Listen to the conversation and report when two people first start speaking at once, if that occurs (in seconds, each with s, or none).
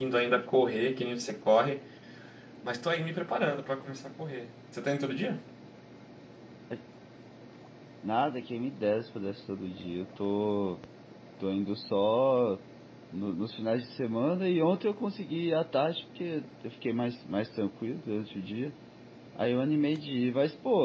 none